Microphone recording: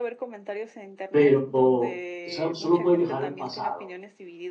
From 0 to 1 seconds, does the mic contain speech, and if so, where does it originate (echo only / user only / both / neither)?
echo only